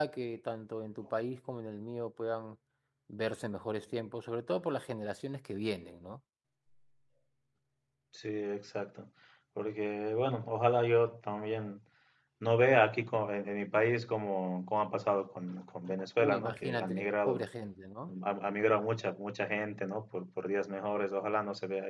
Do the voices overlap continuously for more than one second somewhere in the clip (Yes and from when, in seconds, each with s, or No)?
Yes, from 16.2 s